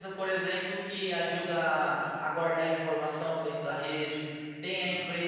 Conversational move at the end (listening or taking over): listening